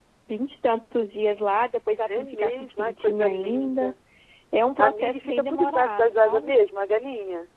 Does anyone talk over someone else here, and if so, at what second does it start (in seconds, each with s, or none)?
2.1 s